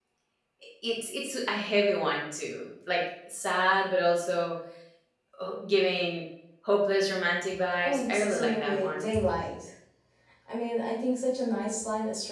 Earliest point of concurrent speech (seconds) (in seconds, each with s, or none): 7.8 s